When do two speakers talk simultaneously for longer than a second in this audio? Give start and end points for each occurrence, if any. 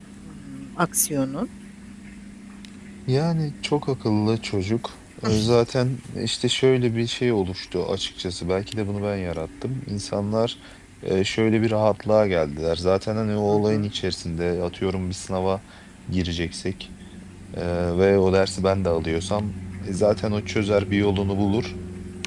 none

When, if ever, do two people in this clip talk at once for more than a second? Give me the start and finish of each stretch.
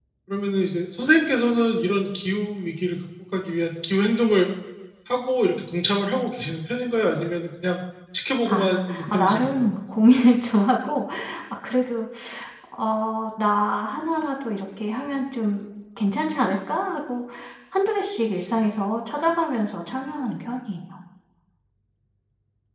8.4-9.7

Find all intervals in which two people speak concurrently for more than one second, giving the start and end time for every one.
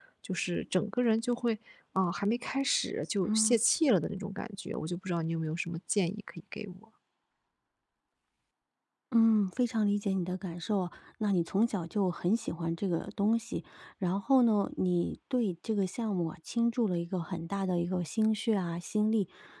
none

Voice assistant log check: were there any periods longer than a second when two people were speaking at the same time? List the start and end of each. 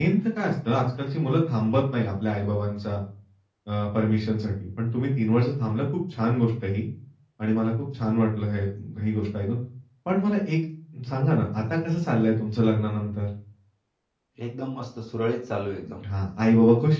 none

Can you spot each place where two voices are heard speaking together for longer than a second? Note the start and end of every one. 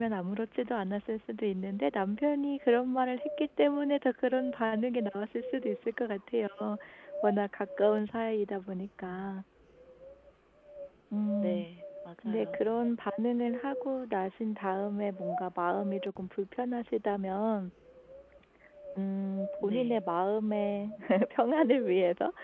none

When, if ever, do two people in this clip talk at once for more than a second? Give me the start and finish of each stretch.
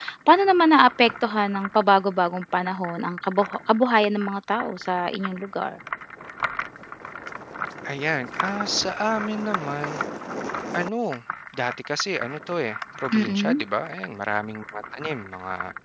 none

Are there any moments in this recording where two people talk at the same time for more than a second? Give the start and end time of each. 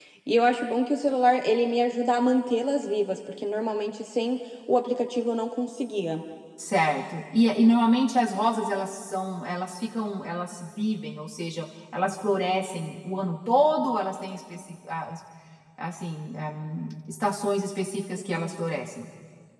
none

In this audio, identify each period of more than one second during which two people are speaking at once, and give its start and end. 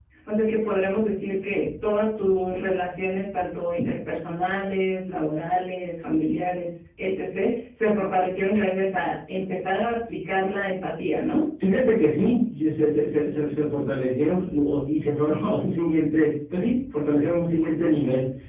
none

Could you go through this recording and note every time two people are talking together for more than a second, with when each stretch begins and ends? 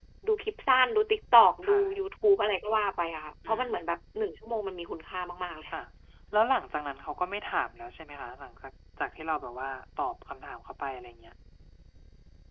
none

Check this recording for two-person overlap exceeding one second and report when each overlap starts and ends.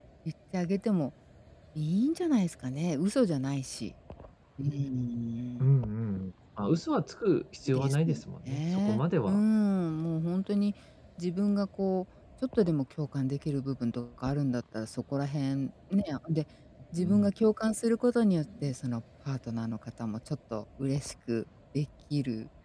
7.7-9.4

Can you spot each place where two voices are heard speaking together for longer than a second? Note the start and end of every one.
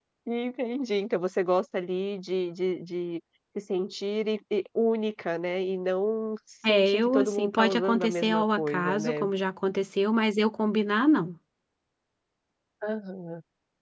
6.7-9.2

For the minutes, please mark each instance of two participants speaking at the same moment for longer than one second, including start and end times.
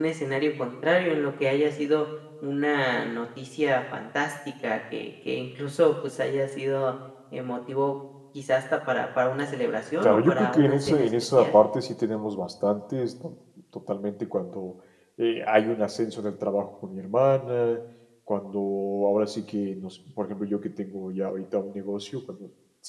10.0-11.6

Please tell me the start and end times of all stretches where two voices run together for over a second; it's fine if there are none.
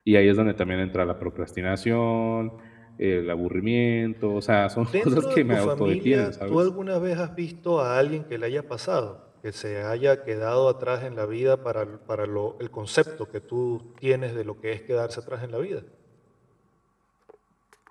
4.8-6.6

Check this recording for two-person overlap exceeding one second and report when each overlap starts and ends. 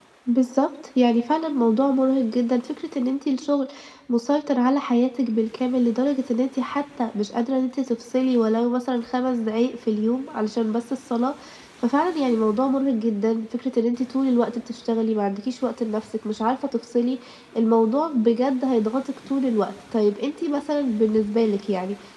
none

